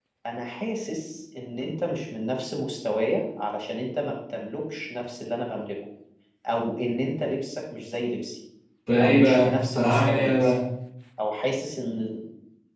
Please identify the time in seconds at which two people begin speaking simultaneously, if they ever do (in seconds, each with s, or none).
9.0 s